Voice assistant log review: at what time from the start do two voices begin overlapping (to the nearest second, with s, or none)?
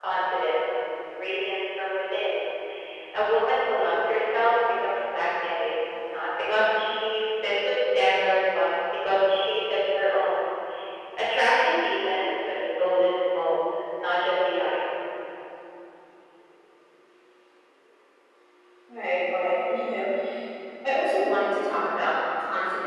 none